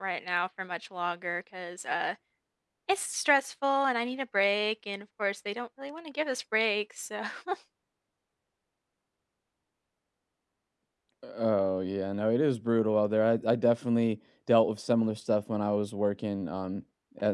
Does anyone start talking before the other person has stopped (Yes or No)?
No